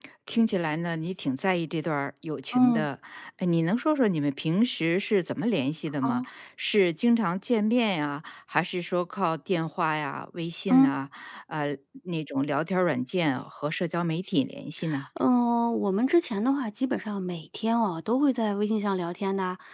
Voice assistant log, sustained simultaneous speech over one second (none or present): none